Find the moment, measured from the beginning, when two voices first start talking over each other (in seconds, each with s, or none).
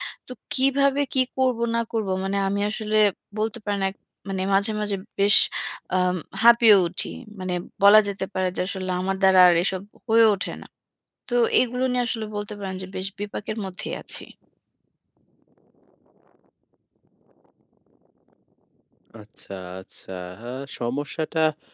none